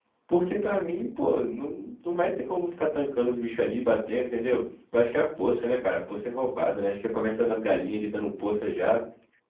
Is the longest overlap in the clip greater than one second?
No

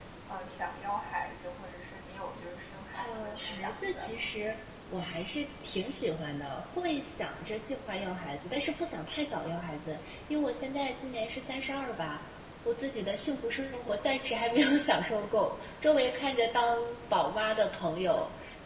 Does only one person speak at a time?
No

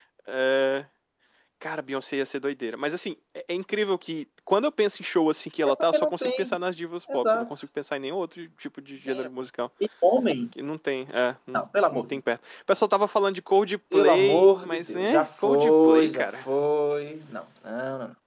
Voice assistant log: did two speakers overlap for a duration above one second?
Yes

